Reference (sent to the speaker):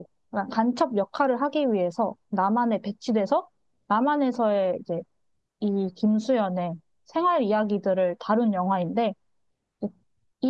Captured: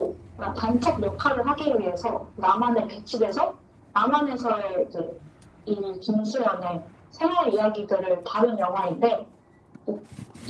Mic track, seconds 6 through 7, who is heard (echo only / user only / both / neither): echo only